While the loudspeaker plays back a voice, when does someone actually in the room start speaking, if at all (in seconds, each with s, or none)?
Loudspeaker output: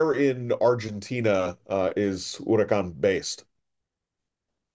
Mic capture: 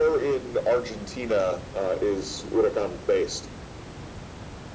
none